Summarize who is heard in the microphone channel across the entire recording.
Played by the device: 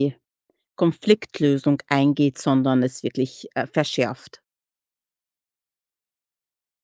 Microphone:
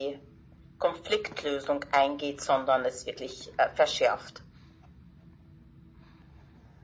echo only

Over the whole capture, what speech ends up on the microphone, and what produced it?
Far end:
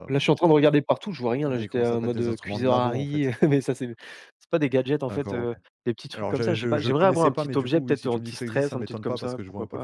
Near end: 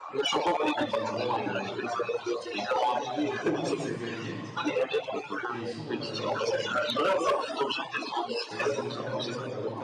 both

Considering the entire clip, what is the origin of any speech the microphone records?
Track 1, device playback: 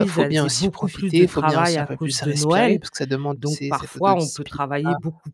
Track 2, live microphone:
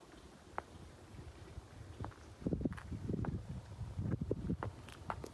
neither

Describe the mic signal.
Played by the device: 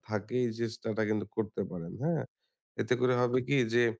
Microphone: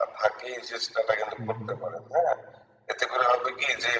both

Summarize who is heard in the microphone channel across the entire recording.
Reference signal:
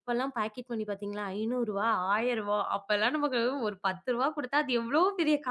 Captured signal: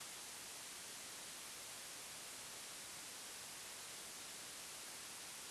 neither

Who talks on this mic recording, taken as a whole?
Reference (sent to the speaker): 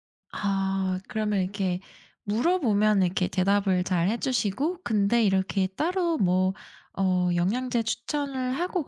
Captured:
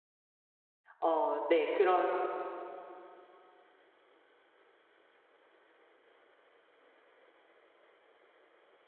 user only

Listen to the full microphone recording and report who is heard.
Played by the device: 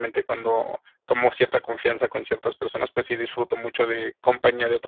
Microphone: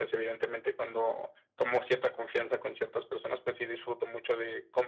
echo only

